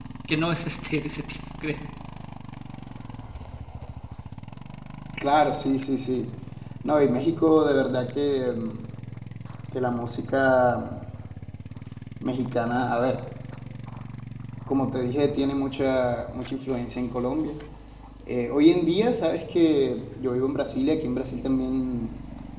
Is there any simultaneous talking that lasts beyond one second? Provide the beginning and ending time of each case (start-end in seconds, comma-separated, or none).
none